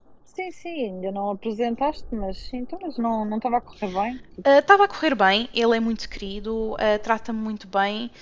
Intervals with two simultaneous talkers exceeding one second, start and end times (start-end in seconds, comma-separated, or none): none